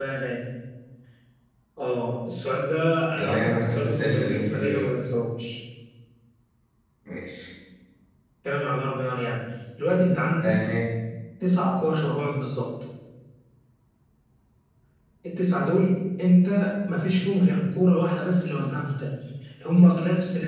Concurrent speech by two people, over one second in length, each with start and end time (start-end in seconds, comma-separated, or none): 3.2-4.9